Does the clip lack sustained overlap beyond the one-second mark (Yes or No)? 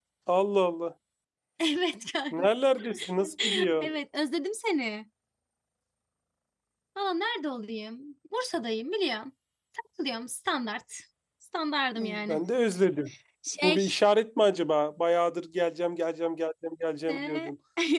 Yes